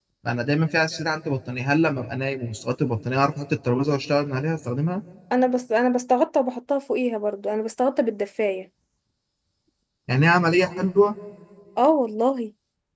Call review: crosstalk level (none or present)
none